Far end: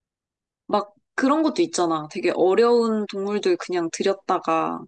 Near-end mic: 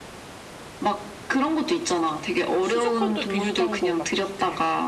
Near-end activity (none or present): present